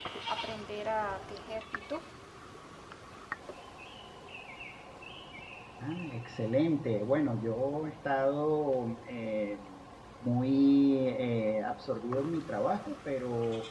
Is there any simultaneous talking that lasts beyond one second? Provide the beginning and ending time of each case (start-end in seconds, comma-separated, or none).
none